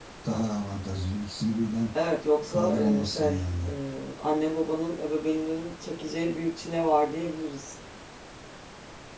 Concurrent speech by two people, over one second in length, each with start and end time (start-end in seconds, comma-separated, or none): 2.5-3.7